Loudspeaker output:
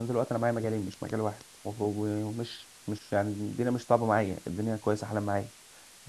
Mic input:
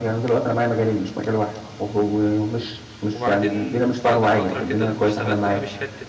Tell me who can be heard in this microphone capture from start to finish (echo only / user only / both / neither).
both